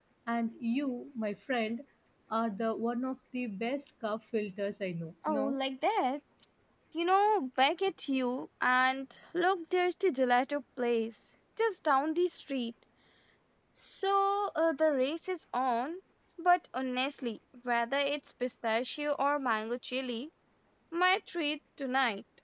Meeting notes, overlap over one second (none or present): none